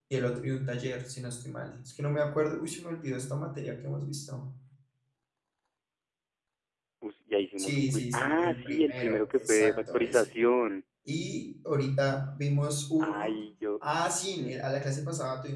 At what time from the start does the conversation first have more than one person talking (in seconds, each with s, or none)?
7.6 s